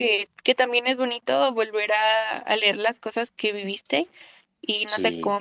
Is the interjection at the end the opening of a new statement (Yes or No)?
No